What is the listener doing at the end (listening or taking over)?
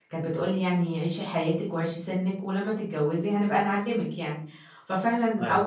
listening